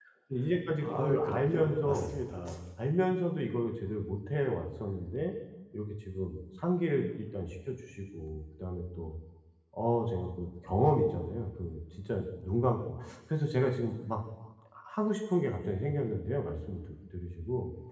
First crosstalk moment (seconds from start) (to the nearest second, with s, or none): 1 s